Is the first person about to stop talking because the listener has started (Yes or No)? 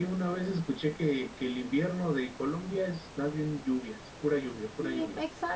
Yes